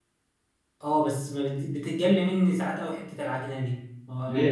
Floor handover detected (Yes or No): Yes